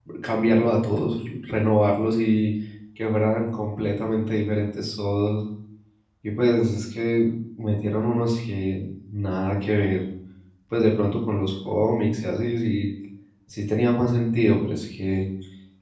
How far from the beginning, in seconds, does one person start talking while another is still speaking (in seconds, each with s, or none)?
none